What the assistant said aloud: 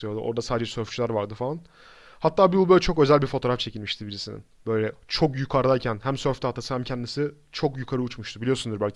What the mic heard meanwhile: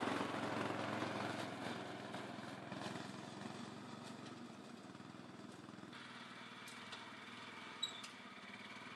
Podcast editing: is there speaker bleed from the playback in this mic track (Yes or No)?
No